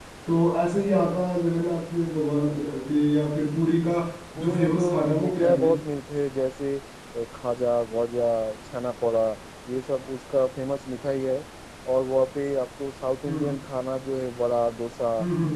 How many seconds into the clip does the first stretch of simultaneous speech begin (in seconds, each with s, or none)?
4.4 s